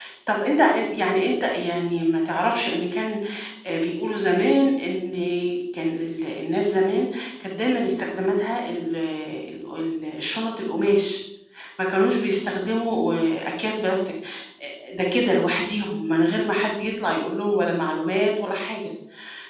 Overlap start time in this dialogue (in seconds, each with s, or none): none